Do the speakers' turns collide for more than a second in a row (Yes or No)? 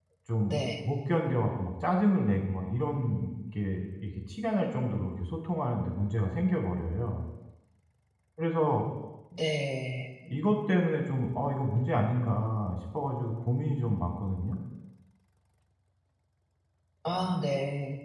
No